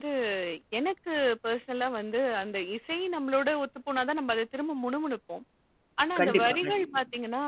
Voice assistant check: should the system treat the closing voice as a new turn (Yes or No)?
No